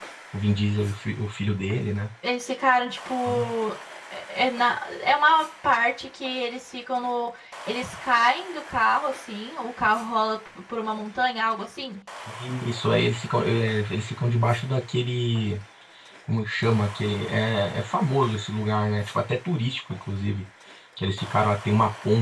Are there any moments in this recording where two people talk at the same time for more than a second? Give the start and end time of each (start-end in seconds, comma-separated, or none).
none